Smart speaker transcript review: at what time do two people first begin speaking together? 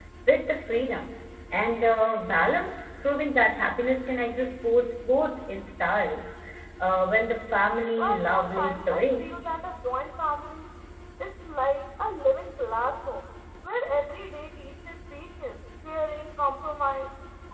8.0 s

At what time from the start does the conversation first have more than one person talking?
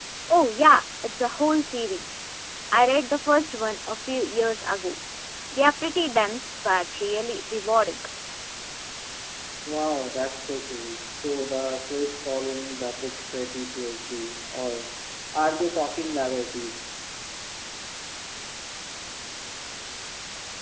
none

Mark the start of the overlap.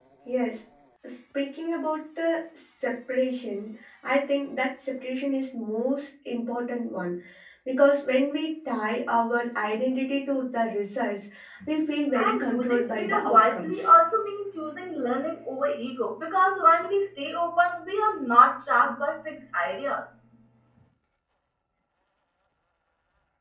12.1 s

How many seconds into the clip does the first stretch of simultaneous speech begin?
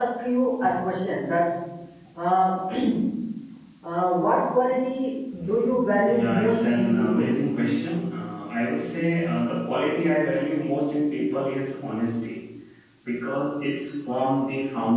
6.0 s

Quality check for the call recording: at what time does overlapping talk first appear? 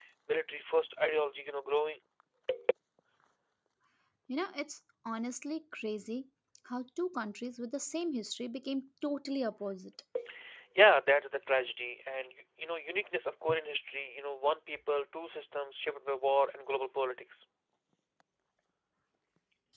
none

